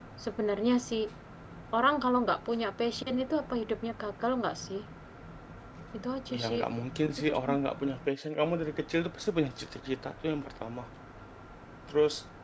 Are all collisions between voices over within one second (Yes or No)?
Yes